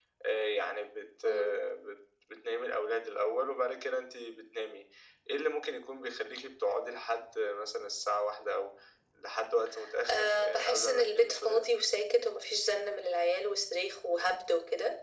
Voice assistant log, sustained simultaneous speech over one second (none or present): present